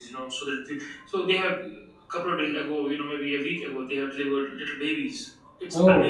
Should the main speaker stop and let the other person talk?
No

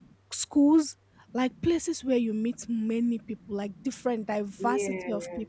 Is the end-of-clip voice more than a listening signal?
No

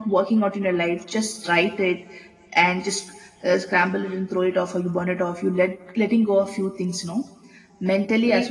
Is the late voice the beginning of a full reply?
Yes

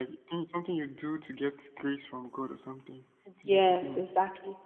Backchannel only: No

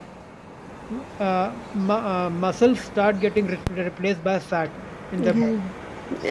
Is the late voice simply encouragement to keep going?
No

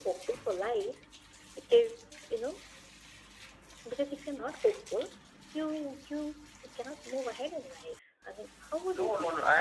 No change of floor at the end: No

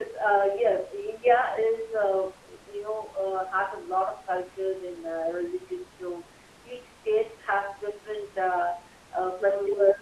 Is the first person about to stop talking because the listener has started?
Yes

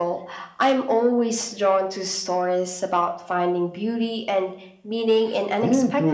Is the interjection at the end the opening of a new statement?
Yes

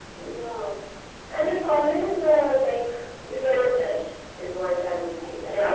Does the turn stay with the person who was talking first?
No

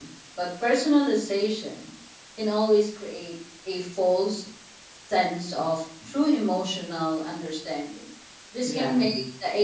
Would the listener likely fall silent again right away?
Yes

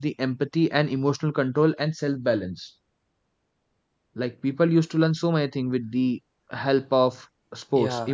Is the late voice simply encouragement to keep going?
No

